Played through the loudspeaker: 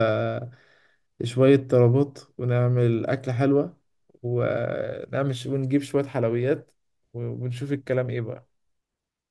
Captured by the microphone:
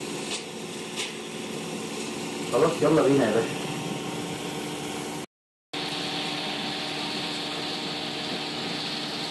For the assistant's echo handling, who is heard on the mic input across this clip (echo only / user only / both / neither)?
user only